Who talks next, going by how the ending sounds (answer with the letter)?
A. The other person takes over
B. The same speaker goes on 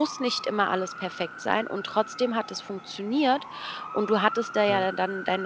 B